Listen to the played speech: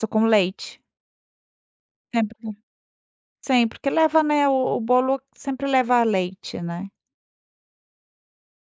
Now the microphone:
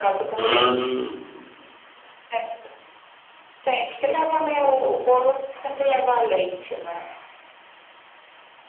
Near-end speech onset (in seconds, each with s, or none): 0.4 s